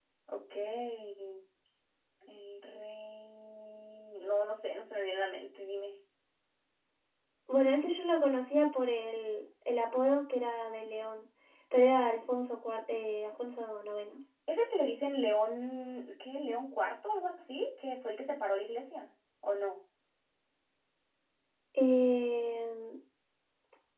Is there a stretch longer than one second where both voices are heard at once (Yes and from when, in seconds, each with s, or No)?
No